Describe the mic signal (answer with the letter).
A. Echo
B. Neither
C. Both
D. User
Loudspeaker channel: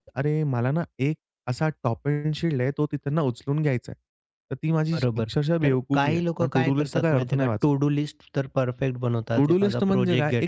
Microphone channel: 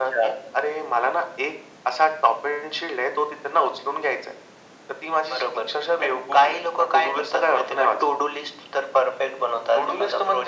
A